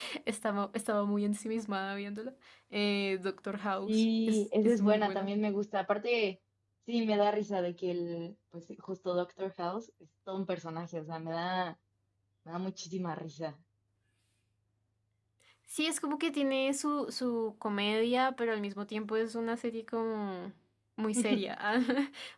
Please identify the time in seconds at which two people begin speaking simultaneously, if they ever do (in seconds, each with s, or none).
3.8 s